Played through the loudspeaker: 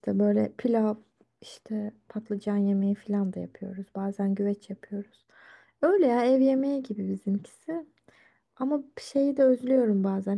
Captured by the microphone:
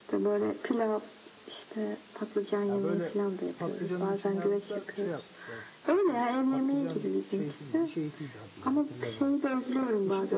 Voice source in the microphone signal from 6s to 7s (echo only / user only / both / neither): both